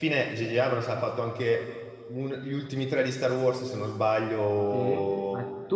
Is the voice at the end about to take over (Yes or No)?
Yes